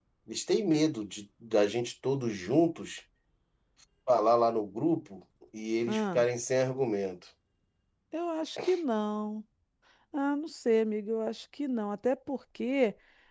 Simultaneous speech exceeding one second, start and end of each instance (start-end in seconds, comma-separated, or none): none